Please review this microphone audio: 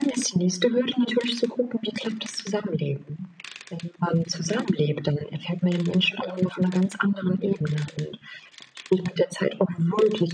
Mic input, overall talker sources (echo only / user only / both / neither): echo only